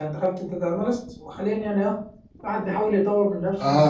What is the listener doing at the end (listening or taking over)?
taking over